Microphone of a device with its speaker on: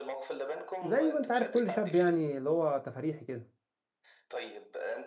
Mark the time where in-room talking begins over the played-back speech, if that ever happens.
1 s

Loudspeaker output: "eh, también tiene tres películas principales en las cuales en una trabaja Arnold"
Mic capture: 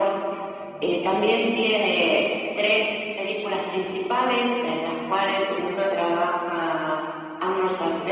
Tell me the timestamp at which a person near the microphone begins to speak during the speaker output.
none

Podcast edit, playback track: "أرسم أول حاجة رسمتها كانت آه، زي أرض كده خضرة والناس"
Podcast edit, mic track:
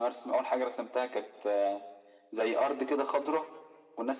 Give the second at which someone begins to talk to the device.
none

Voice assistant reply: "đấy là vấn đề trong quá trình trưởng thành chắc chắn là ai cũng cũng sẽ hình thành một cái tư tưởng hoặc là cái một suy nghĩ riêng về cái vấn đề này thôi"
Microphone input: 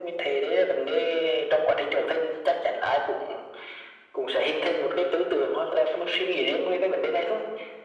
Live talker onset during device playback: none

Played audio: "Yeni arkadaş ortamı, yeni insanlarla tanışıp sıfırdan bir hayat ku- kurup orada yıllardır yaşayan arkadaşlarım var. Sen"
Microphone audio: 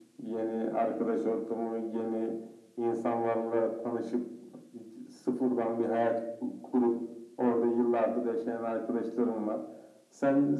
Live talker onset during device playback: none

